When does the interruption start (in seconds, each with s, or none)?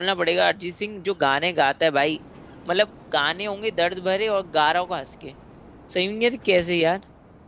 none